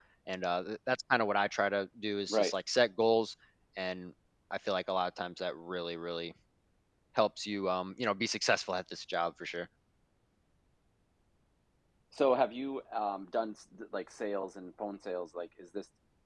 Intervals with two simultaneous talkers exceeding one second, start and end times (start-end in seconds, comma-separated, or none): none